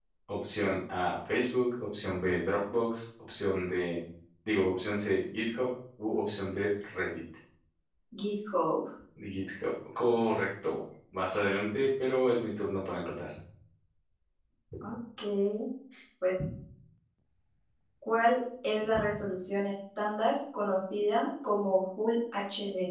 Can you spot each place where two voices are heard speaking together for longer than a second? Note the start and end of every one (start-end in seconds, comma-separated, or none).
none